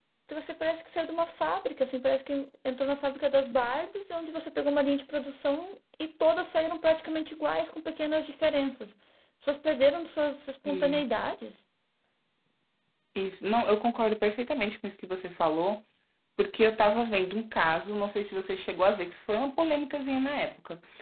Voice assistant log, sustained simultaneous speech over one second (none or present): none